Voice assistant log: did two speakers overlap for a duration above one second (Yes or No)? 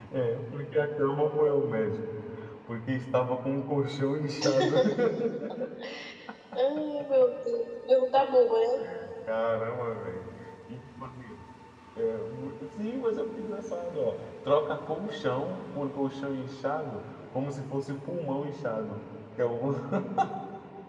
No